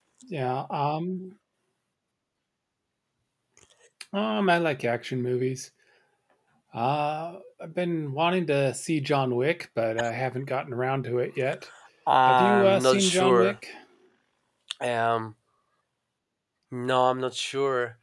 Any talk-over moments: Yes, from 12.3 s

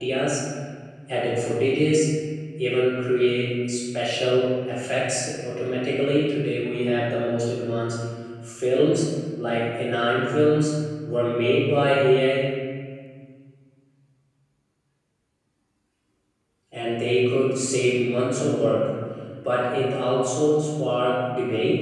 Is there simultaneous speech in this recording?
No

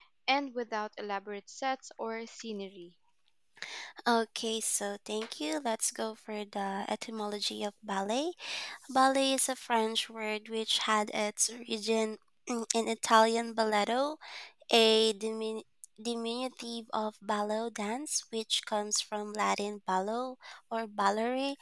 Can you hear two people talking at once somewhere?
No

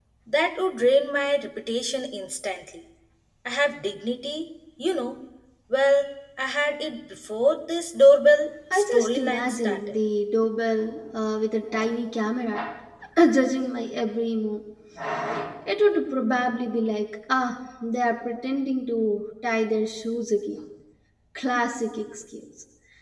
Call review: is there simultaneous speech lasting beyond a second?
Yes, from 8.7 s

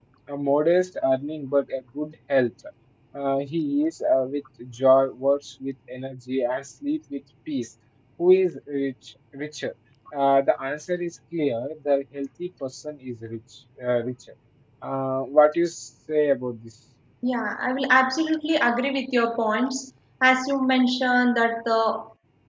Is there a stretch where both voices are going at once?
No

